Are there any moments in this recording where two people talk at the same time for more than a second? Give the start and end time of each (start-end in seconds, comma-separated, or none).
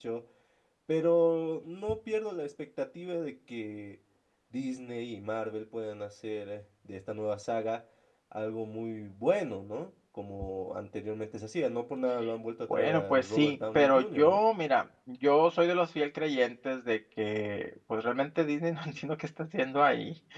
12.7-14.4